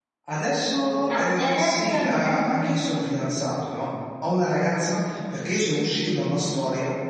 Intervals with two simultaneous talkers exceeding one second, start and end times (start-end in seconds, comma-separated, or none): 1.1-2.6